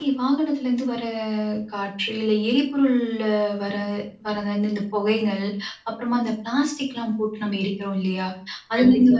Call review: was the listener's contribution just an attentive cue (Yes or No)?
Yes